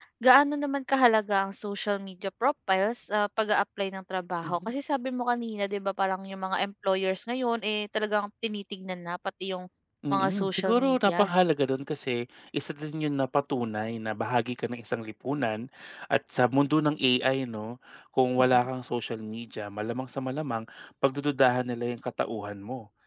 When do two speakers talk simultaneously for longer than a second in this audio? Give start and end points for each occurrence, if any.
10.1-11.5

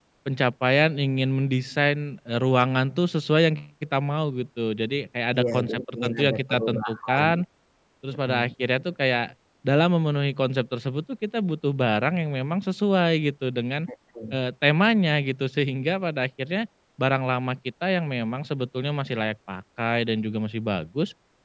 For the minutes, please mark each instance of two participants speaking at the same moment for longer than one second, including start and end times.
5.4-7.2

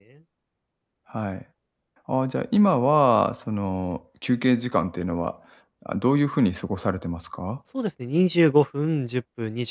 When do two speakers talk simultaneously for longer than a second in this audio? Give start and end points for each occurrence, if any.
none

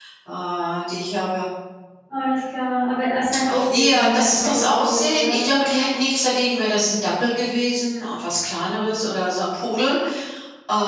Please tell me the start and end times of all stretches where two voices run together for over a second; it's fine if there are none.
3.7-5.5

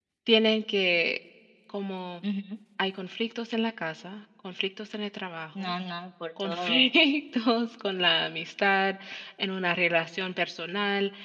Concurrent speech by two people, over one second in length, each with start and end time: none

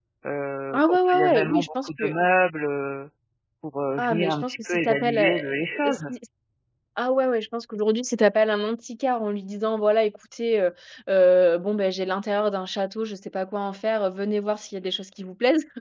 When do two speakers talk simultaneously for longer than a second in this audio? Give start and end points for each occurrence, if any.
0.7-2.2, 4.0-6.0

